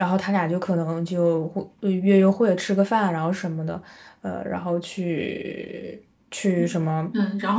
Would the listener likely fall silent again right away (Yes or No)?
No